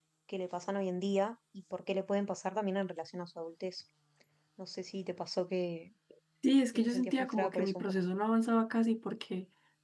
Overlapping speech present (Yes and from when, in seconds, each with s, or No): Yes, from 6.7 s